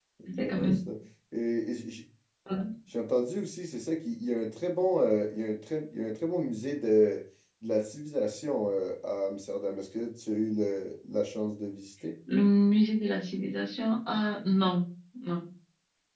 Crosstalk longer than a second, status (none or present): none